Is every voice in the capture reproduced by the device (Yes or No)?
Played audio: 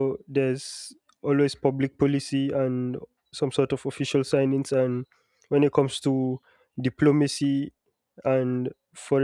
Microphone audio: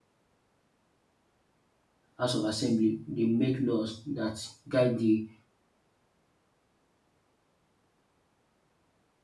No